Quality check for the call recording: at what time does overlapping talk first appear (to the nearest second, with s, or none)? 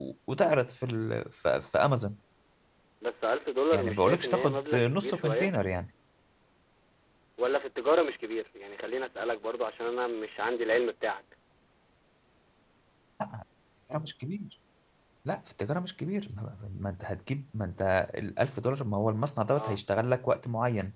4 s